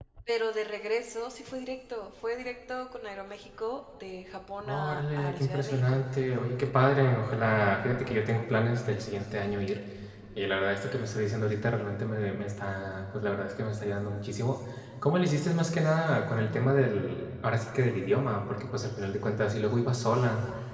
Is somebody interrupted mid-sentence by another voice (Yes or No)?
Yes